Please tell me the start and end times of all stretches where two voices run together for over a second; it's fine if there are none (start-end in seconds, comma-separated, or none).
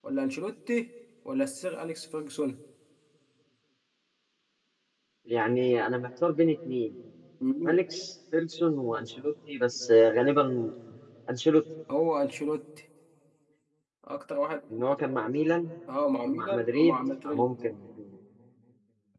16.2-17.5